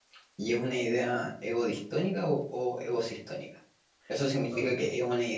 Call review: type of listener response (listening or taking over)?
listening